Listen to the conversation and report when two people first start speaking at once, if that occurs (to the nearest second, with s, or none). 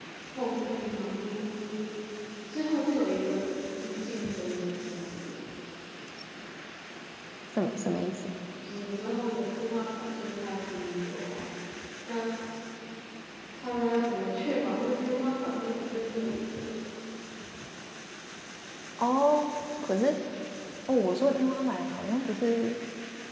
none